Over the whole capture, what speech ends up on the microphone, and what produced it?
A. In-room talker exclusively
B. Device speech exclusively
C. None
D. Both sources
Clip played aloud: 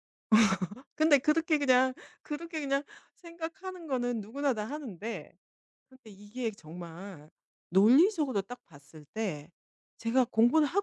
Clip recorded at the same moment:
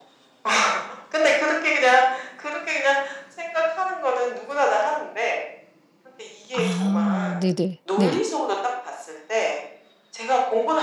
D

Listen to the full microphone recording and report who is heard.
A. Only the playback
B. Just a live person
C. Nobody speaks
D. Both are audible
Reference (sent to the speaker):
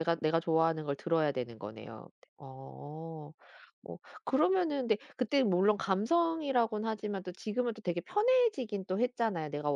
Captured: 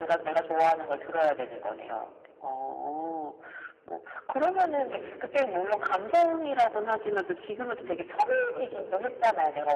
D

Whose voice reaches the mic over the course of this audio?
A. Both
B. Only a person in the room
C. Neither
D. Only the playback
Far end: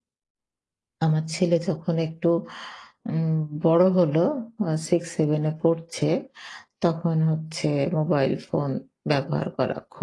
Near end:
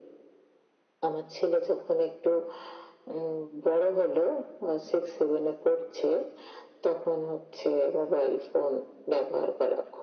D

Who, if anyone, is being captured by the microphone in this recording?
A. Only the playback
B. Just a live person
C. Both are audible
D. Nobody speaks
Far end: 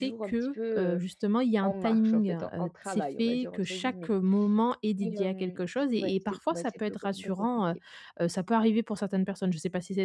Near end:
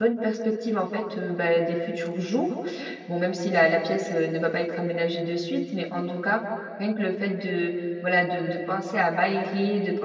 B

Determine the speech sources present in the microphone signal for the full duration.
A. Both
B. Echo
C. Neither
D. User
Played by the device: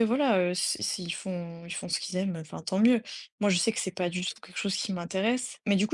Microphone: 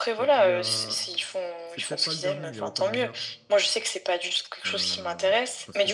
A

